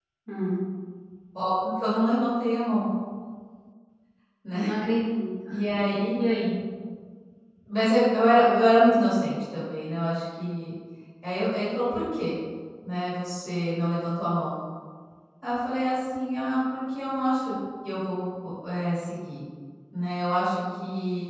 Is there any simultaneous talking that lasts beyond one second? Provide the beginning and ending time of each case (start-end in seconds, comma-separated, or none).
none